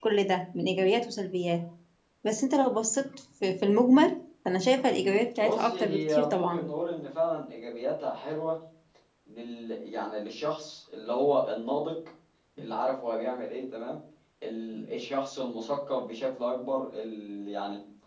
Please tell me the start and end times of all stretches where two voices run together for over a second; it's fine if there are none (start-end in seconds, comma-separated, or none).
5.4-6.7